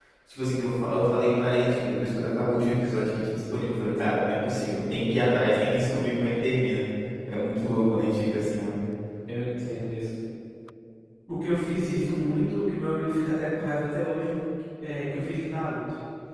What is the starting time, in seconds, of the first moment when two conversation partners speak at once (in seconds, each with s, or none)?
none